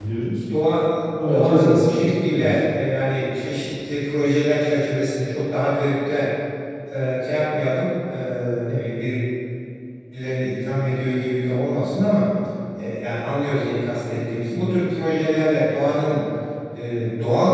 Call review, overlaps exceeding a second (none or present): present